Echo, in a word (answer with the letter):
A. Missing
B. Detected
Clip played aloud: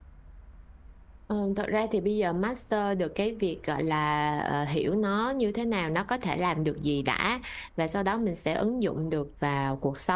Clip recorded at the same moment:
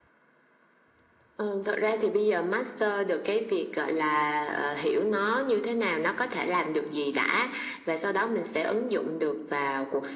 B